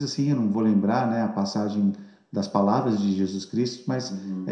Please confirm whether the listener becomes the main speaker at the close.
No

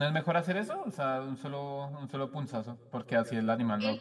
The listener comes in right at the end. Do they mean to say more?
Yes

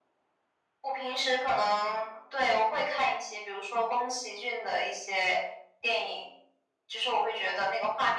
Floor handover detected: No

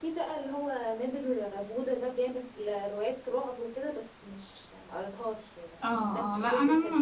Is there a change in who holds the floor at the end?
Yes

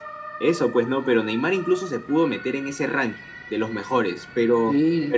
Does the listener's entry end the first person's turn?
Yes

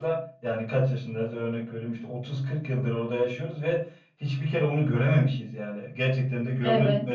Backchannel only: No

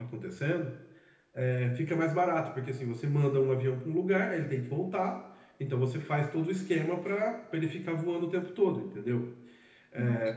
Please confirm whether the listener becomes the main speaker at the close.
No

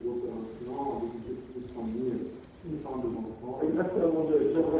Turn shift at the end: Yes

